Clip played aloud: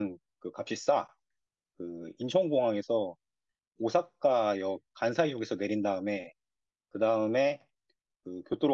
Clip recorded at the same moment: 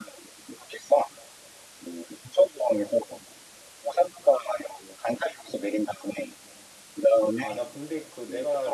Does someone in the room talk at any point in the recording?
Yes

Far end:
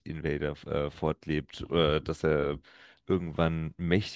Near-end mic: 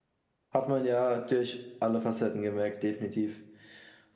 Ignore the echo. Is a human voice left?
Yes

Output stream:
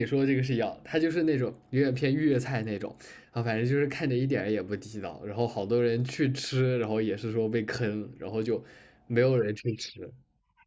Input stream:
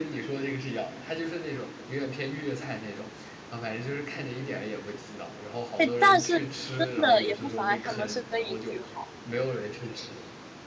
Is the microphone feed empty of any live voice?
No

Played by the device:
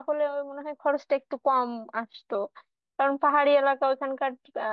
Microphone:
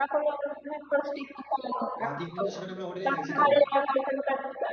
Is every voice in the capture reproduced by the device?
No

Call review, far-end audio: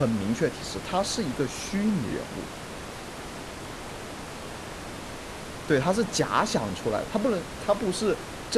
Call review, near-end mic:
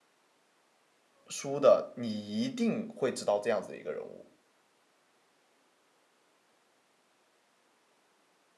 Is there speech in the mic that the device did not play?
Yes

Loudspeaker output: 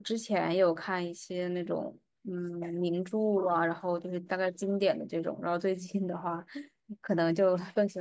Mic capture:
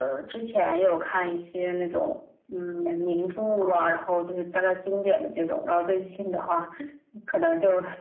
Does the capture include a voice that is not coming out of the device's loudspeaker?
No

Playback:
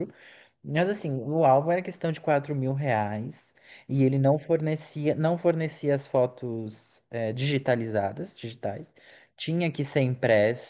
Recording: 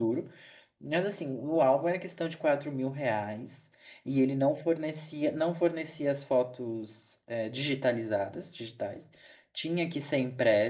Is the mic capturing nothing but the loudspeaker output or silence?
Yes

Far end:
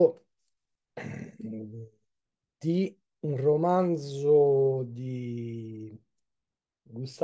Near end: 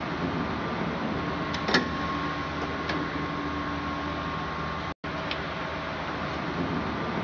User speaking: No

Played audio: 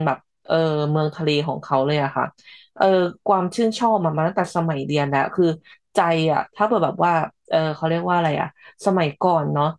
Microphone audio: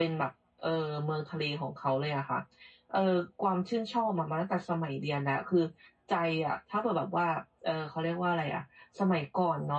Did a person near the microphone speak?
No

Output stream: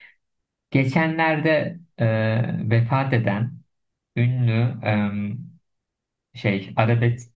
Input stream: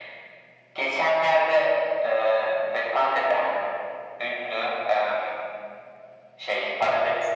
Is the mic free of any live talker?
Yes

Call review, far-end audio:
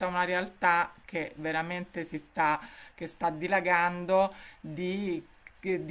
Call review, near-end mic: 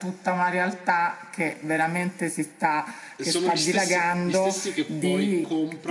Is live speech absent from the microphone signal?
No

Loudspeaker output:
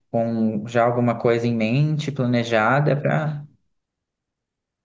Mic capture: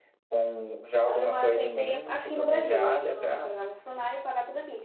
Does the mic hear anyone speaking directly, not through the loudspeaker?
Yes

